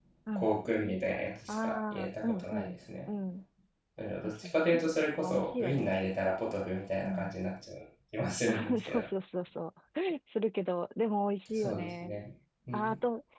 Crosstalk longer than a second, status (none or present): present